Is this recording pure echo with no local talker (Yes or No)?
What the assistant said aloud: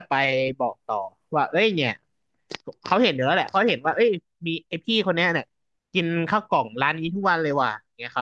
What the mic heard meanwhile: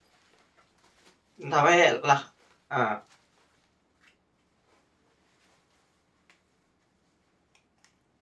No